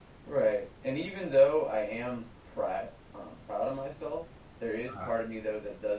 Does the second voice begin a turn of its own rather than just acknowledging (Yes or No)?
No